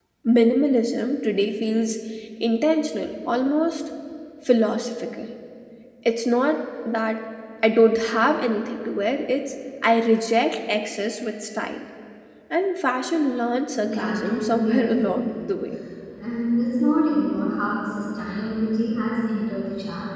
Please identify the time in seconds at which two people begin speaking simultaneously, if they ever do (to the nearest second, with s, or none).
14 s